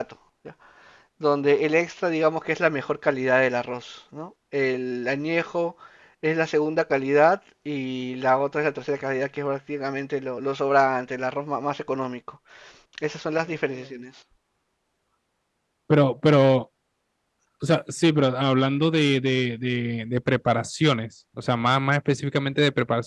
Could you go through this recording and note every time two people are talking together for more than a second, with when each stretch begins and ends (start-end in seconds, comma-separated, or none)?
none